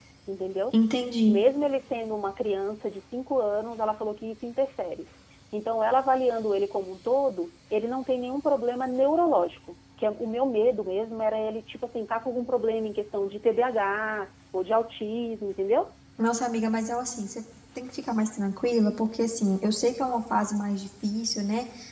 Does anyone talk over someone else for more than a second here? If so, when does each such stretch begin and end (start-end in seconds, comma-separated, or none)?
none